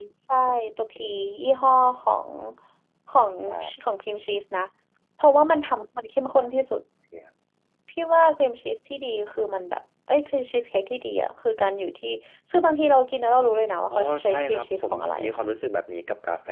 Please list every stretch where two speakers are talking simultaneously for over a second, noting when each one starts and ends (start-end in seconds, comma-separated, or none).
13.9-15.4